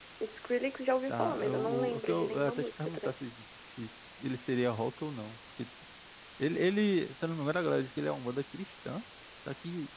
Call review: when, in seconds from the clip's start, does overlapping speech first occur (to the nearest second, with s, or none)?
1 s